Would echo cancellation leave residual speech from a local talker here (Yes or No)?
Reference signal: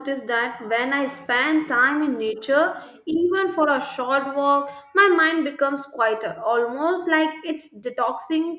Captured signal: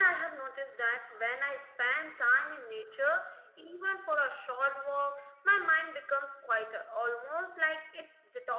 No